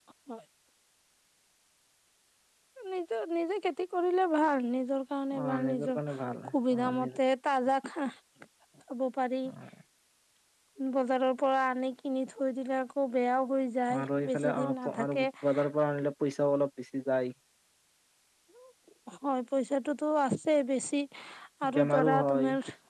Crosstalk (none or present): present